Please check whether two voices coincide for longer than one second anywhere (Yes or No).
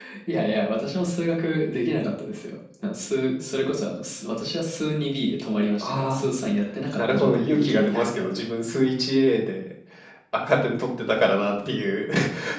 Yes